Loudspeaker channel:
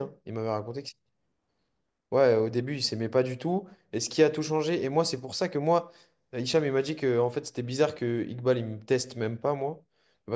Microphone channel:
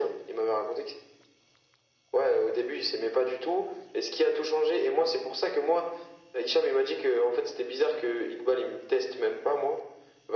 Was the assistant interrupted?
No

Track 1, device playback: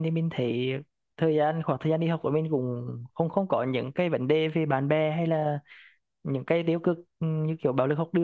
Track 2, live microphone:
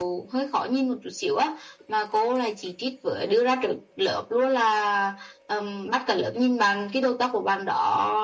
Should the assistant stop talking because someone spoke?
Yes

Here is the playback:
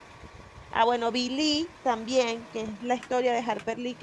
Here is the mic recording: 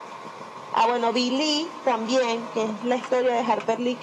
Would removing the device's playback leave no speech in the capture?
Yes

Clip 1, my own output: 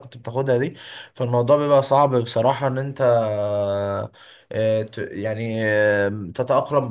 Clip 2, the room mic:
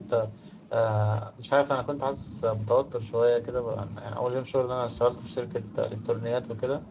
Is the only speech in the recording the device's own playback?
No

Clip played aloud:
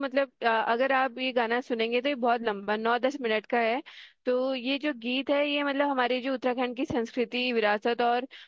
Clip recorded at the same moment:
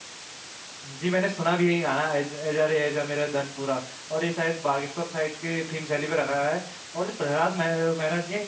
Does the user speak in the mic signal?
Yes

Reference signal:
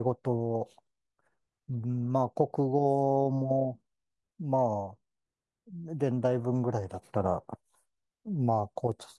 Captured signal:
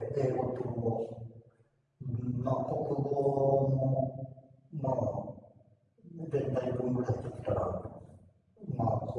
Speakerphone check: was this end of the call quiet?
Yes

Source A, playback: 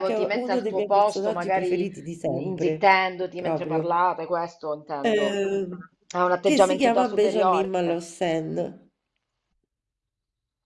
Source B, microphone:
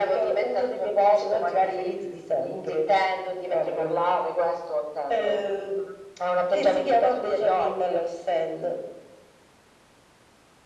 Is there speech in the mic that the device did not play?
No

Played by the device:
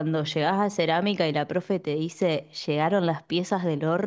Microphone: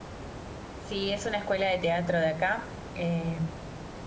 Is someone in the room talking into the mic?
Yes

